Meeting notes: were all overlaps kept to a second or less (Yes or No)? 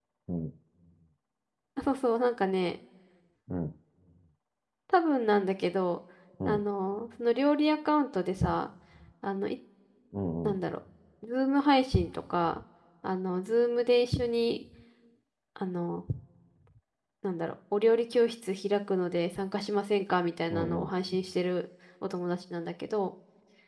Yes